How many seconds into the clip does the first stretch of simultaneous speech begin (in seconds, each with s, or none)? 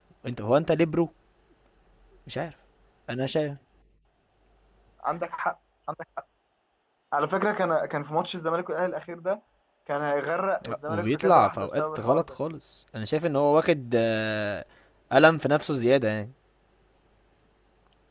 10.9 s